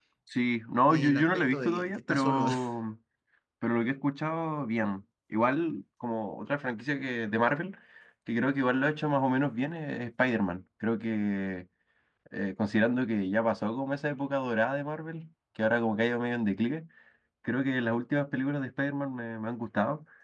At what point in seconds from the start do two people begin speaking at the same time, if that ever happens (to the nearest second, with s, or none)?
1 s